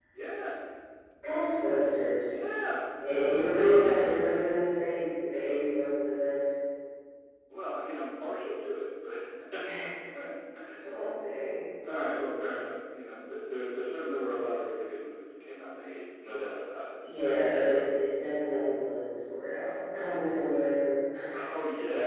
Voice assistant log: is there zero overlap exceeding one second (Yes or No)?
Yes